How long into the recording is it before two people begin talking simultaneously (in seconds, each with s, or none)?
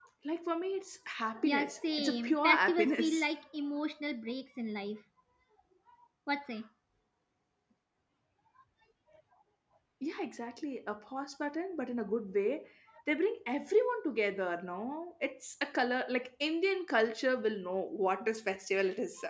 1.4 s